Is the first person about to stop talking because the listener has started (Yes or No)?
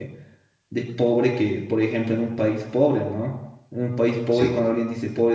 No